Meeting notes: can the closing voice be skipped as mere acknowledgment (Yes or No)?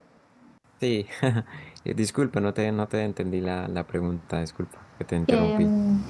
No